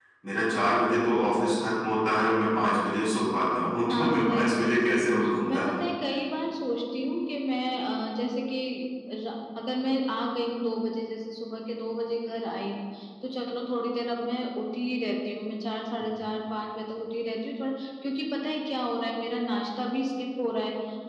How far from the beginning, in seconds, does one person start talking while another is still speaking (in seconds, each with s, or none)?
3.9 s